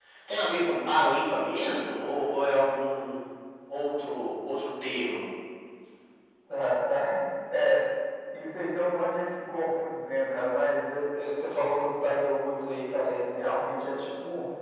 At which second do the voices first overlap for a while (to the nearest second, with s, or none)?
none